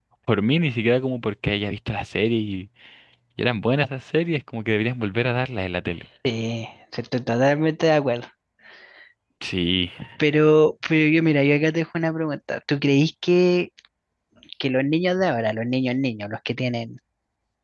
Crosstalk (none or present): none